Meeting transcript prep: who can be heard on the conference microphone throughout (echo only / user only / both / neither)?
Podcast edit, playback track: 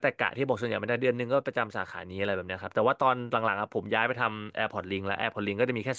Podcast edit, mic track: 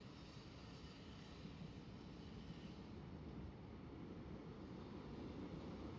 neither